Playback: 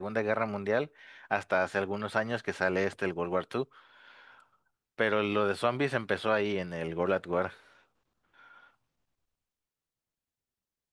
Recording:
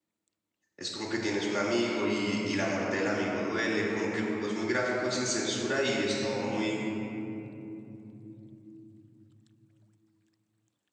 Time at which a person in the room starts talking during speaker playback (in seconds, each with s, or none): 0.8 s